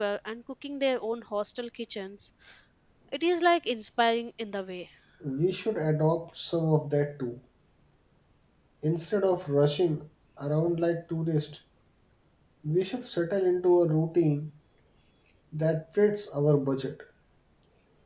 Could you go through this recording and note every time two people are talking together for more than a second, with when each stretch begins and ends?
none

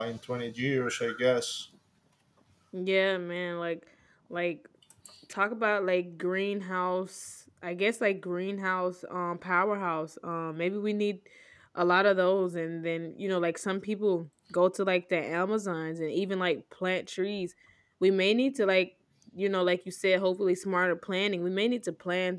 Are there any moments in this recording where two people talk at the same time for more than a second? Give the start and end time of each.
none

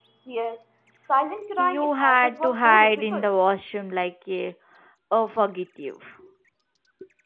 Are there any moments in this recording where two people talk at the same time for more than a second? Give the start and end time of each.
1.6-3.3

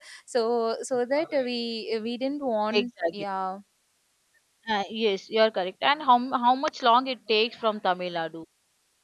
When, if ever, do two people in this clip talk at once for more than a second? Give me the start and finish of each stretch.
none

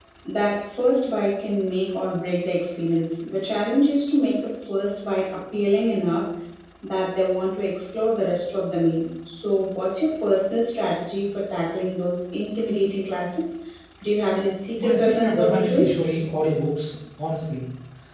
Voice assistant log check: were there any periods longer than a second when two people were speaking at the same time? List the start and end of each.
14.8-16.0

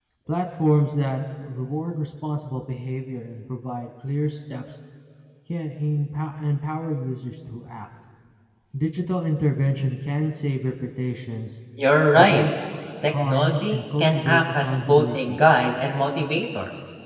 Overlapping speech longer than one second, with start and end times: 13.1-15.4

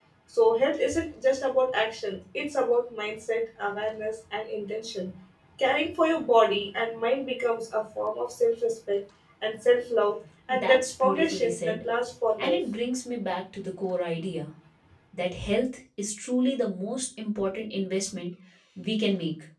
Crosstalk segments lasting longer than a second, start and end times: 10.5-11.8

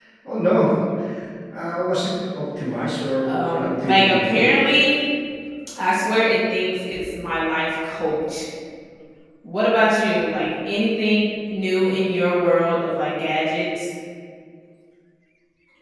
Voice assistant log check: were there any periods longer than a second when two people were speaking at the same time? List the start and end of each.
3.3-4.5

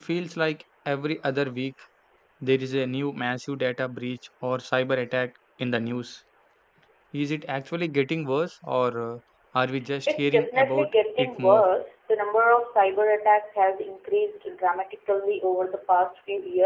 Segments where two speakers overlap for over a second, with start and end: 10.1-11.6

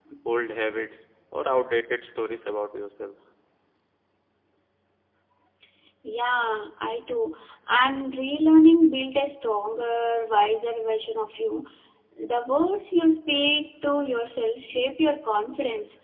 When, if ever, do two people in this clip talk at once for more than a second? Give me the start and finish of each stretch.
none

